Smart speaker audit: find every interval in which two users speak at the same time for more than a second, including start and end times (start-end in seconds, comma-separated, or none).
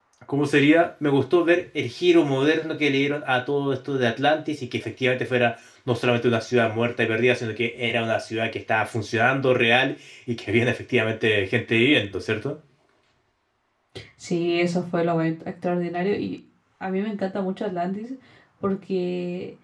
none